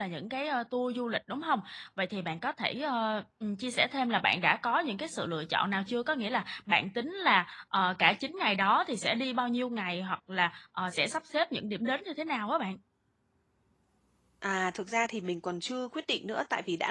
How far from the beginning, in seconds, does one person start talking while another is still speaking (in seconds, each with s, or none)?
none